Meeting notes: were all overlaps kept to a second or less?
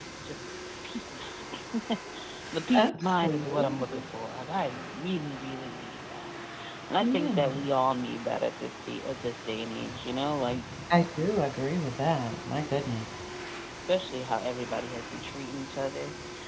No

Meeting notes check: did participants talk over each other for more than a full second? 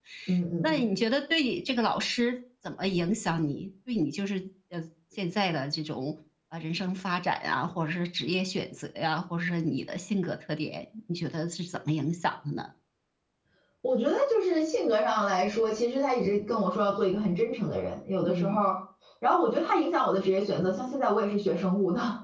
No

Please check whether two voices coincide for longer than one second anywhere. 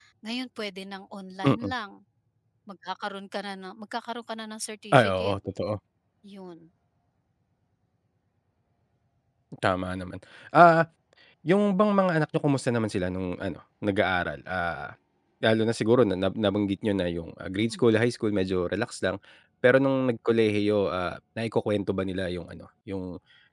No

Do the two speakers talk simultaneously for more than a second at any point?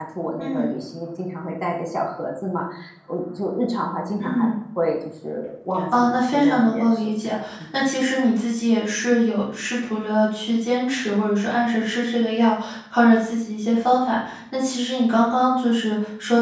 Yes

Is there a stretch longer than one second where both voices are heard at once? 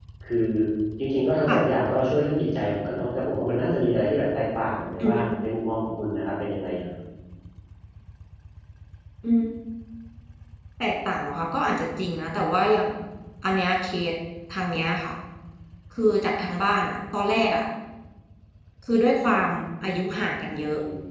No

